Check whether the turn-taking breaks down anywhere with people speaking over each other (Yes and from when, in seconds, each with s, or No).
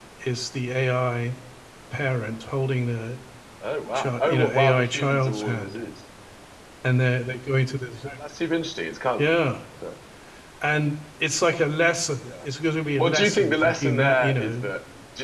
Yes, from 3.9 s